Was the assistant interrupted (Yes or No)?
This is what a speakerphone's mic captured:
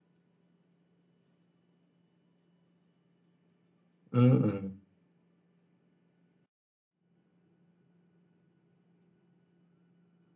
Yes